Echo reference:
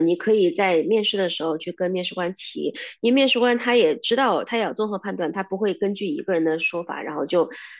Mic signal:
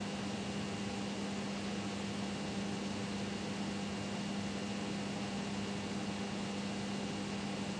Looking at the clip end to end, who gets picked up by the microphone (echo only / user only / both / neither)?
neither